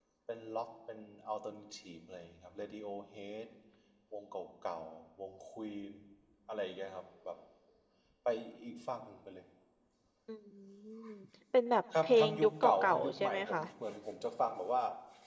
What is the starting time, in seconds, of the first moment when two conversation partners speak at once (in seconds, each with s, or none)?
12.0 s